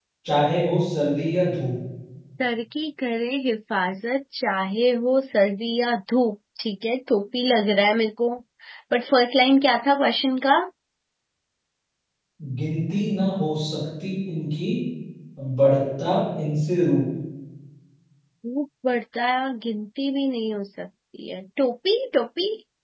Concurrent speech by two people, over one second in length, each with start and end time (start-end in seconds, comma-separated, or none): none